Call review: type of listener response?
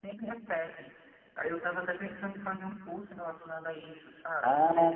taking over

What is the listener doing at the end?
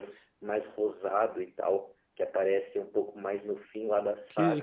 taking over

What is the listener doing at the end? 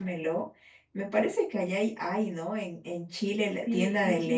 taking over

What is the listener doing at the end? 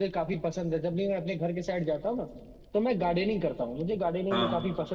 listening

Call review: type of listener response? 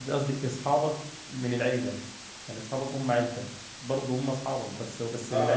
taking over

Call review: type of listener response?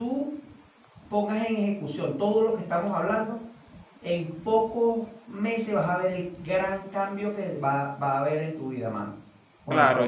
taking over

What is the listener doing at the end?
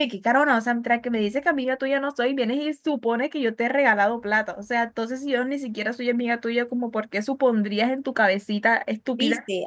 taking over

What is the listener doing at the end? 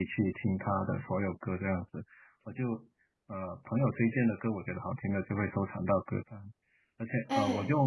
listening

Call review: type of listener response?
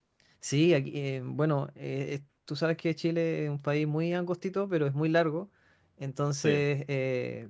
listening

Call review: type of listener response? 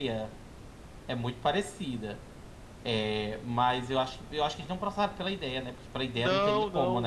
taking over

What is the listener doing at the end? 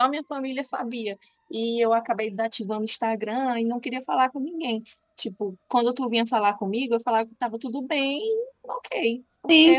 taking over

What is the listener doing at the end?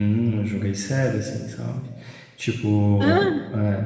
listening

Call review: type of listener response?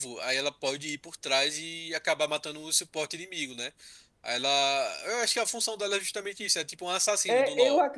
taking over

